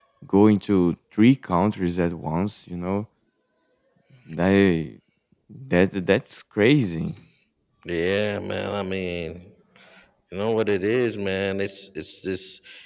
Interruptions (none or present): none